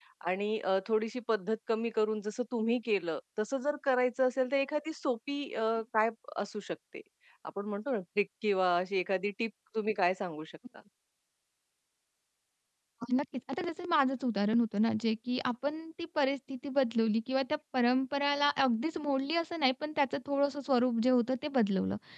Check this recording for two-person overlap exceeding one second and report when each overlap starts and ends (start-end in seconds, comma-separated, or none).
none